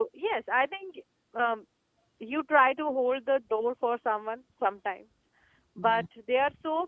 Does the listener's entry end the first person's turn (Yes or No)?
No